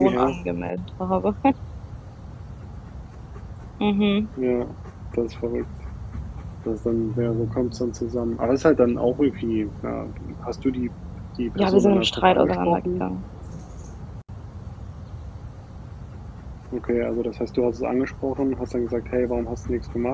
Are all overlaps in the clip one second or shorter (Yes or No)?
No